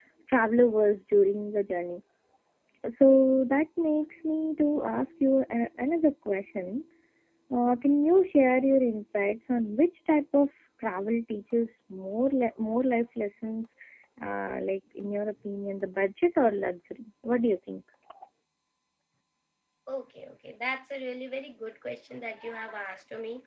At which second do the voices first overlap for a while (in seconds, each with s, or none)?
none